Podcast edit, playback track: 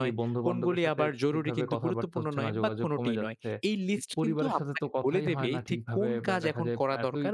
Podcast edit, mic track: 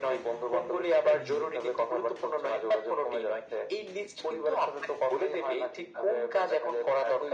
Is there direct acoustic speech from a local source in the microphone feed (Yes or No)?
Yes